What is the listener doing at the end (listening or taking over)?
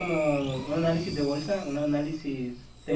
taking over